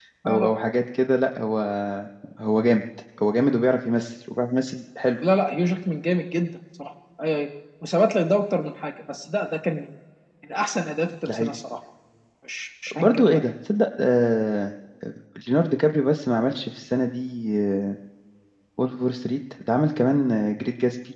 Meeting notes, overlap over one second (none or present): none